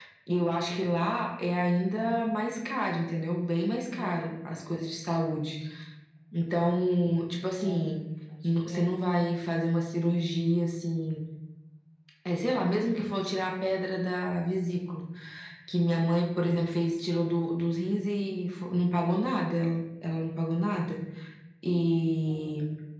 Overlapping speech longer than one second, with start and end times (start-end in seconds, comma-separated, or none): none